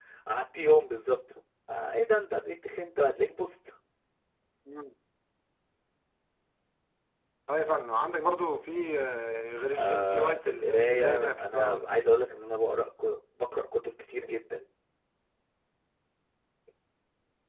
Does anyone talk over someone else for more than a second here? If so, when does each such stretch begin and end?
9.8-11.9

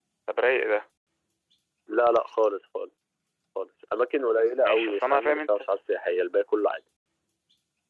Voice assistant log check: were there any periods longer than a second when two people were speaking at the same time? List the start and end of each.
4.3-5.7

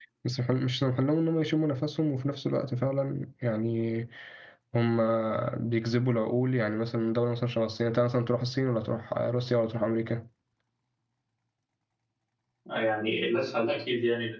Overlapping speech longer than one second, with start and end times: none

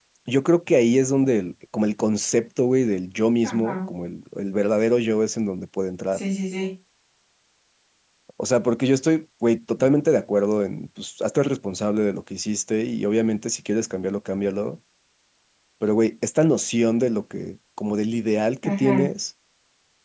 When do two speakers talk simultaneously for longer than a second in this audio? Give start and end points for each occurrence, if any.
none

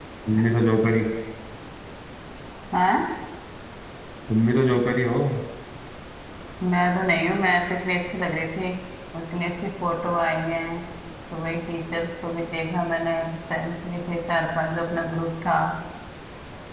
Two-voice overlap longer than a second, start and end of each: none

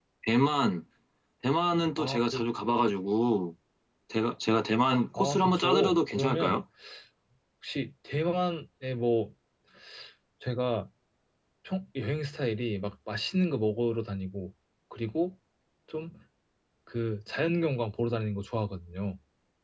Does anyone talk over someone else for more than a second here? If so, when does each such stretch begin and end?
5.2-6.6

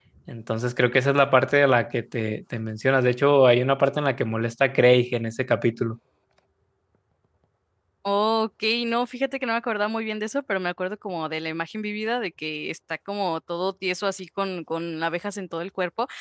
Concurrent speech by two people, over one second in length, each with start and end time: none

